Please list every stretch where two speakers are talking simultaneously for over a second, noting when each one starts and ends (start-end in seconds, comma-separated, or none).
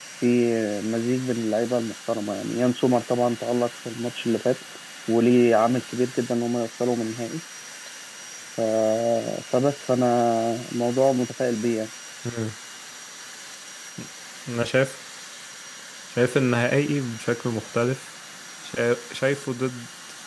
none